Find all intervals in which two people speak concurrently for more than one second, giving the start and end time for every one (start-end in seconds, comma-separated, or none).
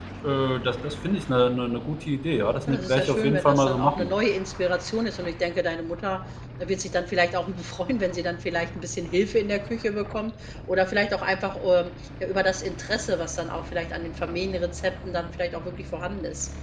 2.7-4.1